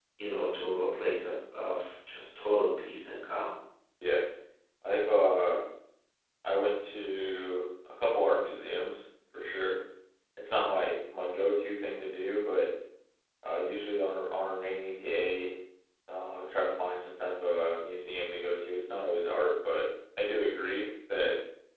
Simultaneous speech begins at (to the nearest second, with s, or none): none